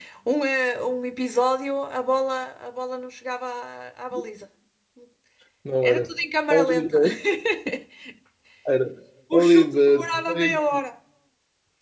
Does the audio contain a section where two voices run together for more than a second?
Yes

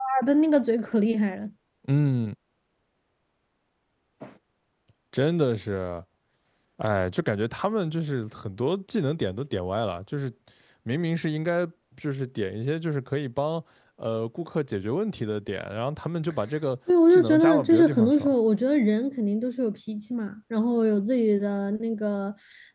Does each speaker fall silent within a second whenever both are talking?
No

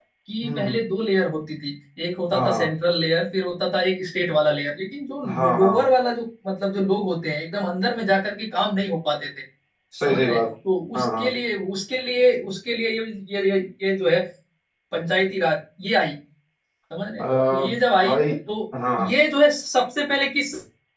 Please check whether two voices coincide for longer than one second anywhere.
No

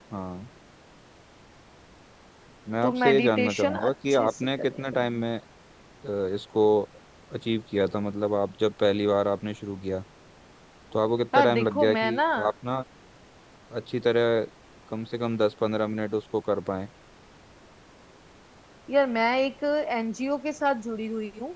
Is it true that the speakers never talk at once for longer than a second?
No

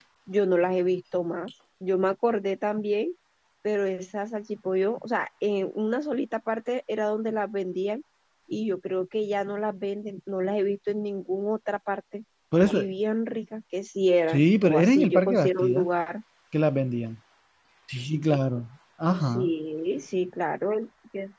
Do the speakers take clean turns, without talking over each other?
No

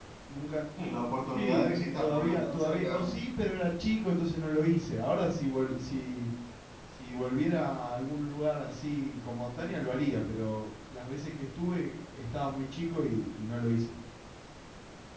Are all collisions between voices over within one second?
No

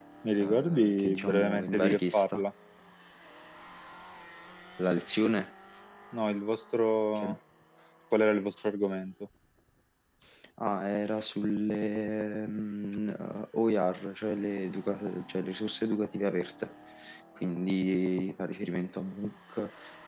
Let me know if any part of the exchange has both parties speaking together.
Yes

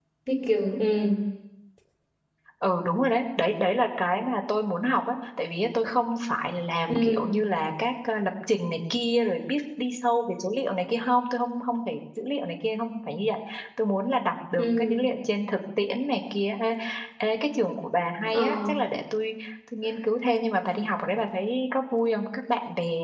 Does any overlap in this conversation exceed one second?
No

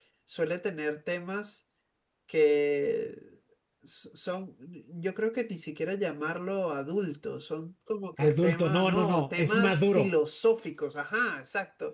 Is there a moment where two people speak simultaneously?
Yes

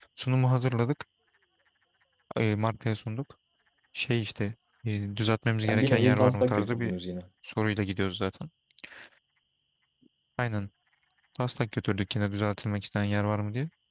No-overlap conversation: No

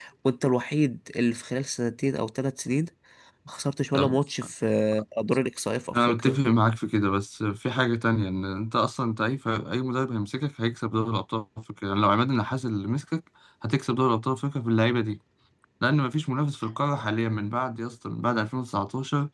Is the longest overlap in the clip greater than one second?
No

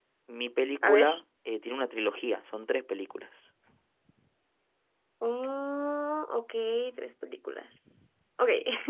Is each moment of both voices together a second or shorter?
Yes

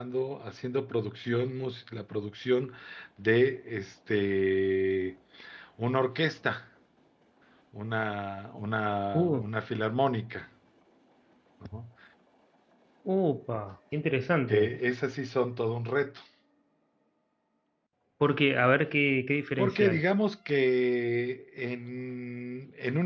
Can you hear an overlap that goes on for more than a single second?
No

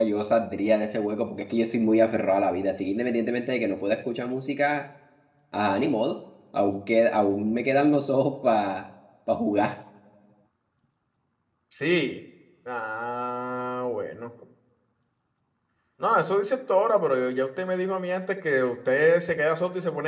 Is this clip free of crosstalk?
Yes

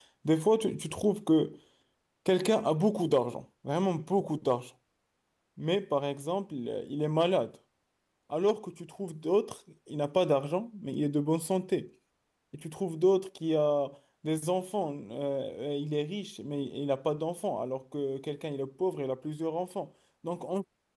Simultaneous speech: No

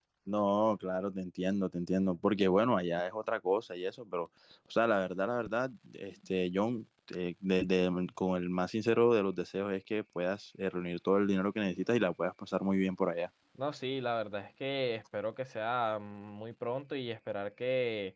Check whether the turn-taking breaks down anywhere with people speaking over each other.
No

